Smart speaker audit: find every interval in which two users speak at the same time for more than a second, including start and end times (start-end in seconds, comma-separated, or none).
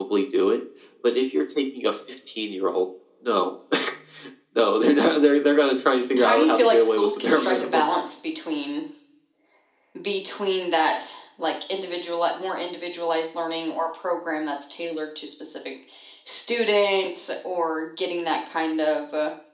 6.2-7.8